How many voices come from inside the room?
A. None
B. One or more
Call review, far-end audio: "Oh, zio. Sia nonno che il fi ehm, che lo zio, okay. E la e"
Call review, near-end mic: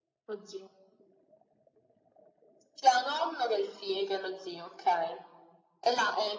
A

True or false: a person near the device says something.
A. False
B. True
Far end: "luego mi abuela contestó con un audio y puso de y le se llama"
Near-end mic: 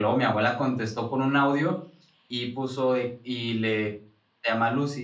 A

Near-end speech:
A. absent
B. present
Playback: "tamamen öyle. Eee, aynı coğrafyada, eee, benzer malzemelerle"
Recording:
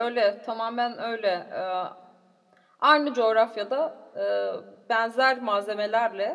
A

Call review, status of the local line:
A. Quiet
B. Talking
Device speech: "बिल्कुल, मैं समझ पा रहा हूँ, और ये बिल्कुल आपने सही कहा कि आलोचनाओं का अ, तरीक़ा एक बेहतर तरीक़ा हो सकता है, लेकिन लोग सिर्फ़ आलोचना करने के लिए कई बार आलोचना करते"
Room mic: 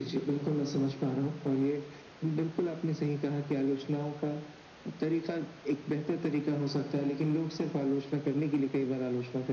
A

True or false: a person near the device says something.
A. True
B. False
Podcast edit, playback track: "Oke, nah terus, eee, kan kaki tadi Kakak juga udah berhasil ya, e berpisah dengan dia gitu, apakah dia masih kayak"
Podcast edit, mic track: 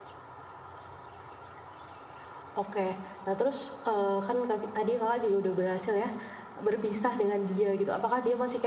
B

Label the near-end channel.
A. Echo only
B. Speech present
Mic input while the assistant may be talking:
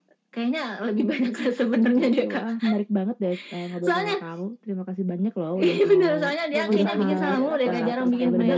B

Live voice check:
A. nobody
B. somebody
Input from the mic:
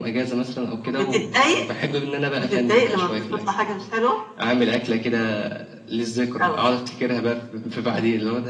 A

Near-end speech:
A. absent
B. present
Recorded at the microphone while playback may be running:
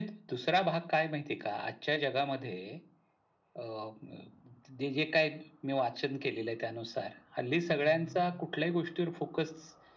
B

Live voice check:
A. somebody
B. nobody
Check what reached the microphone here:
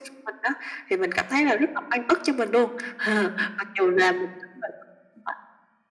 B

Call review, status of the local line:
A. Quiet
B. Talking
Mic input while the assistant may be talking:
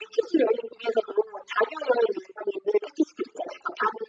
A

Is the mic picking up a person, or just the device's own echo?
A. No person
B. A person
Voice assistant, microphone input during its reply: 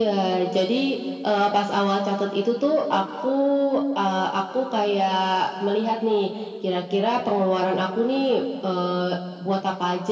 A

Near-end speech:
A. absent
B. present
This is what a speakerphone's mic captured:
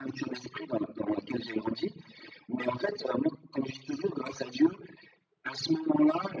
A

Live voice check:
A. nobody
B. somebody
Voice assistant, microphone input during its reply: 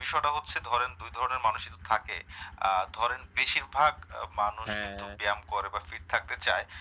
B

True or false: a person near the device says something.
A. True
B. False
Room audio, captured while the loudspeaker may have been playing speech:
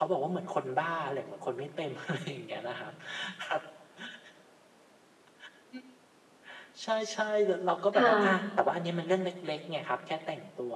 A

